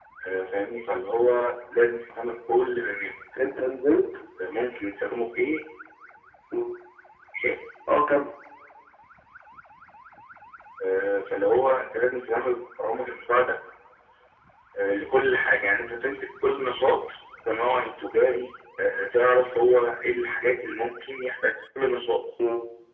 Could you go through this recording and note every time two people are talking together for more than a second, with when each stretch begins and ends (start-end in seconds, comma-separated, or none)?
none